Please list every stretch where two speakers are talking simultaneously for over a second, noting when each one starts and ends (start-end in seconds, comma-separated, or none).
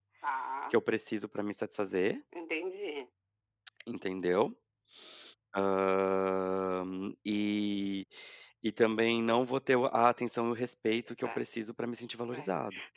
none